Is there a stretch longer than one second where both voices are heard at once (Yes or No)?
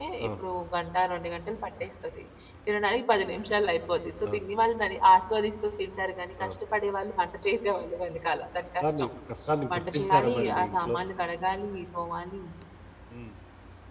Yes